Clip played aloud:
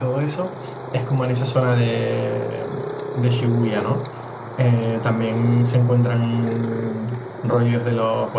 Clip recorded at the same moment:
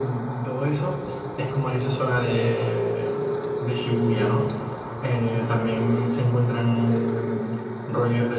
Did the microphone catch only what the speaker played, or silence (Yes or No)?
Yes